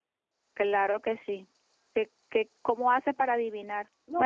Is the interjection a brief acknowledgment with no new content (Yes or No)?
No